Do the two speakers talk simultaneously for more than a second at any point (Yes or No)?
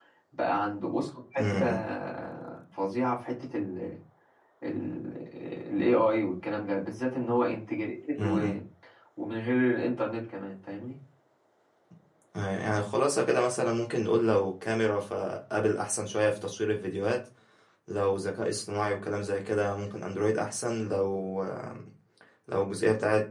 No